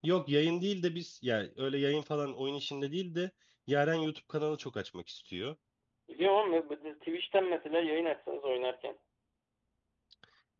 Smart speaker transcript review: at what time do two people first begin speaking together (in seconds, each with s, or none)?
none